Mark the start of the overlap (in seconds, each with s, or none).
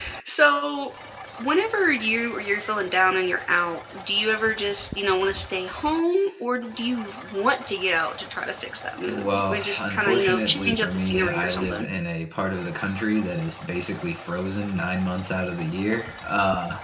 9.0 s